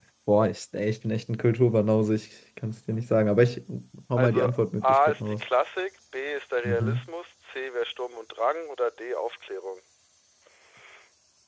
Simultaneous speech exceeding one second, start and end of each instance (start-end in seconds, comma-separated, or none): 4.2-5.4